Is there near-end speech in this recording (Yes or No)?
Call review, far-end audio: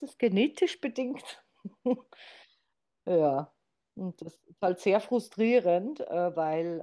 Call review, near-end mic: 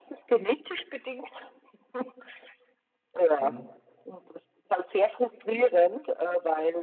Yes